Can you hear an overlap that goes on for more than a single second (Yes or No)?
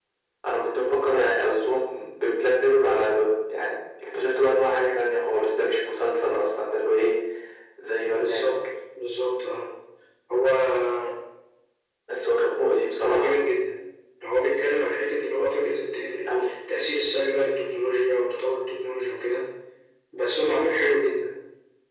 No